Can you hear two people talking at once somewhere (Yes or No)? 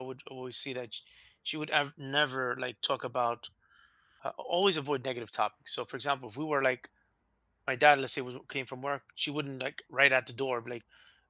No